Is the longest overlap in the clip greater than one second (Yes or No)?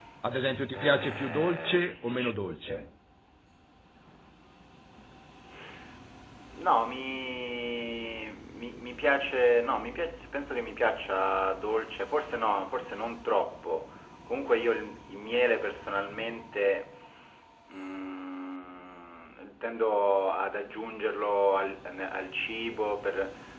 Yes